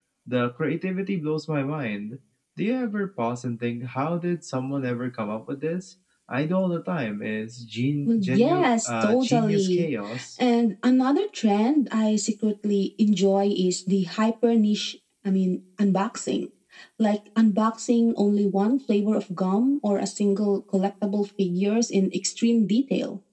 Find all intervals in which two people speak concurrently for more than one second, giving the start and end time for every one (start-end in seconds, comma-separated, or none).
8.0-9.9